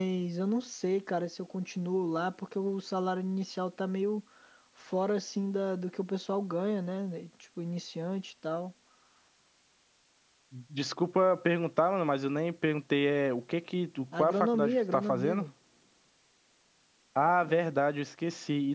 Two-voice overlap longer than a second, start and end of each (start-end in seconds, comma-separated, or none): 14.2-15.4